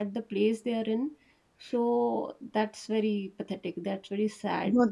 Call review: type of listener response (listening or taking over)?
taking over